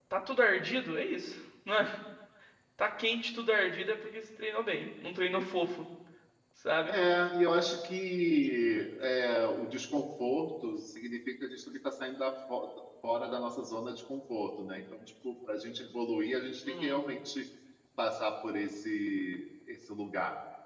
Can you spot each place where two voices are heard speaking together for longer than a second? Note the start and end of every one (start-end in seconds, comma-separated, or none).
none